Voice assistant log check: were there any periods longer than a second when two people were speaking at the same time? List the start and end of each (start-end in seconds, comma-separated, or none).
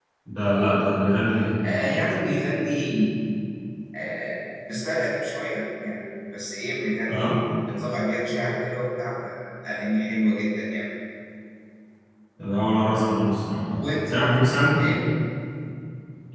none